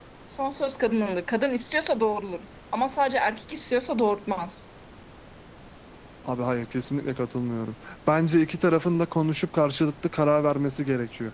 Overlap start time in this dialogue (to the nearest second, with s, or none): none